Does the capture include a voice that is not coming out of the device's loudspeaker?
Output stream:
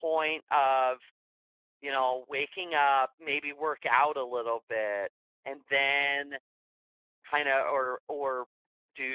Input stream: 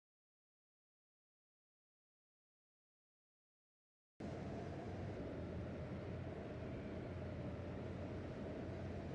No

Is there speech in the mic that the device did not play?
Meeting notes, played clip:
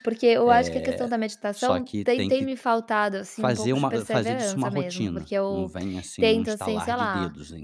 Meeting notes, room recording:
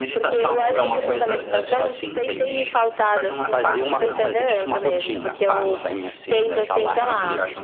Yes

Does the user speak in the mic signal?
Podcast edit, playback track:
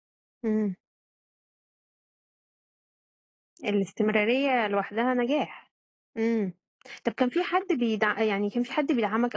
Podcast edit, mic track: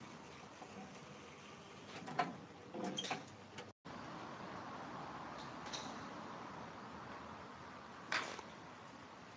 No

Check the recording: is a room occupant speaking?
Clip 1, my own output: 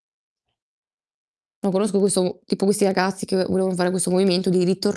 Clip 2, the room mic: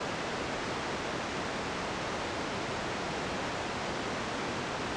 No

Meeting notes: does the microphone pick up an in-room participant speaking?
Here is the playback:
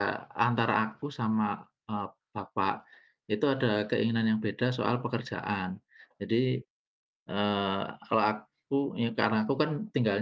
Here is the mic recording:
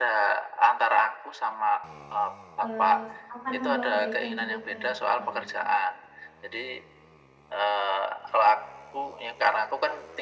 Yes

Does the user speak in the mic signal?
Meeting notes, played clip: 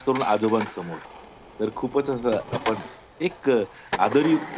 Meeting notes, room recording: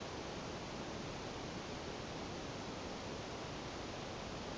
No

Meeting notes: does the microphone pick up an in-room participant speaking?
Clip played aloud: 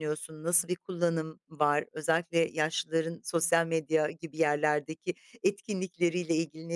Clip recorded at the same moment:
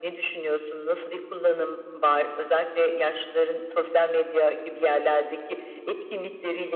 No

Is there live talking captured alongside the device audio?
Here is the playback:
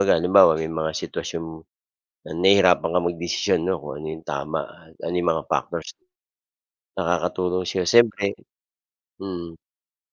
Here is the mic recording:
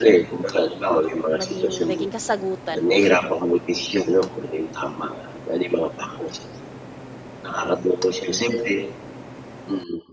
Yes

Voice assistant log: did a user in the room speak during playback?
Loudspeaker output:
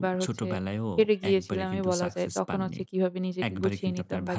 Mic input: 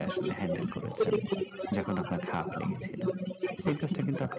Yes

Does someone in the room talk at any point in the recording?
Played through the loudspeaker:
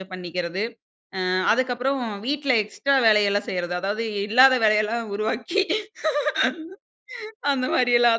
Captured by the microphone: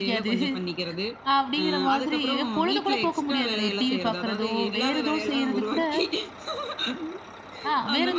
Yes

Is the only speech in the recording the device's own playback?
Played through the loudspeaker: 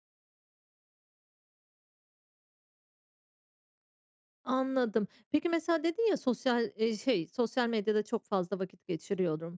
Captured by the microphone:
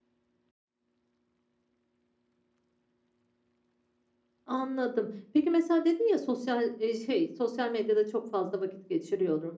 Yes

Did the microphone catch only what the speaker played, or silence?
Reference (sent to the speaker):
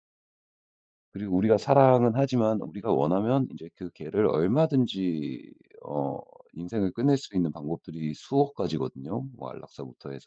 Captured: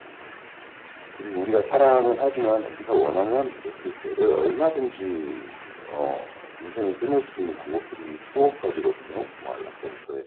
Yes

